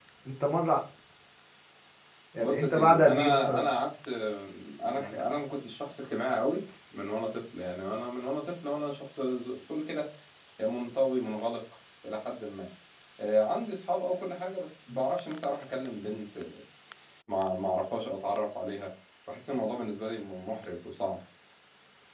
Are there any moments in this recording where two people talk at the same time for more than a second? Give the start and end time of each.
2.4-3.7

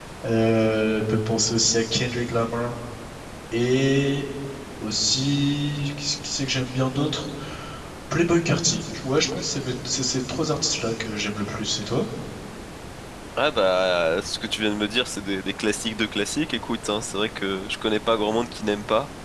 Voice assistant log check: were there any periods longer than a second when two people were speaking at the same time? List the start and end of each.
none

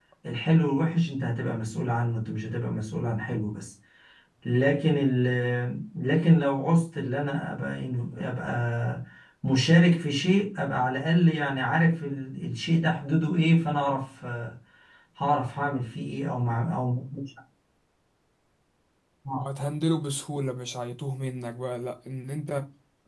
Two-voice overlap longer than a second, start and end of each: none

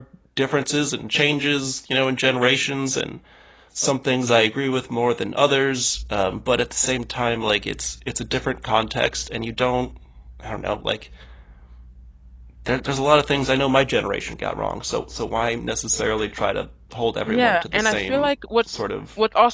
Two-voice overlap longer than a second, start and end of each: 17.3-18.6

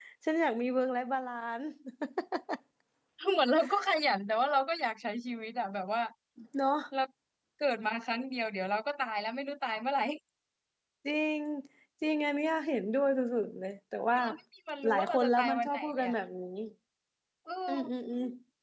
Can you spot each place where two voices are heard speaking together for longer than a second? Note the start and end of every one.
14.9-16.1

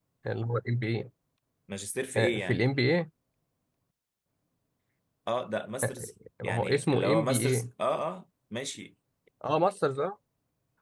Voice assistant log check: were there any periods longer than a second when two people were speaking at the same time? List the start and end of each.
6.4-7.7

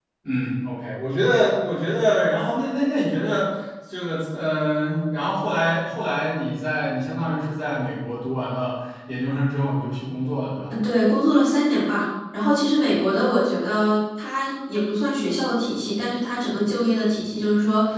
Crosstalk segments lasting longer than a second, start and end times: none

